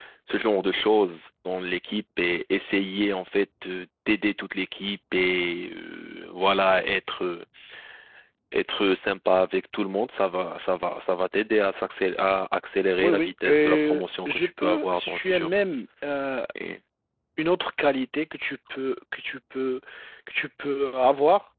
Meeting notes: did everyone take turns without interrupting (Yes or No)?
No